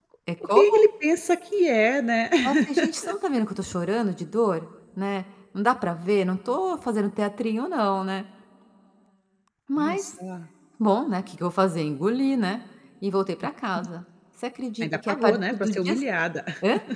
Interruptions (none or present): present